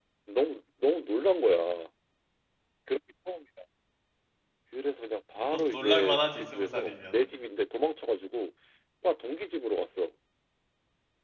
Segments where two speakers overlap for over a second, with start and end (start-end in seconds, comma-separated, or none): 5.5-7.1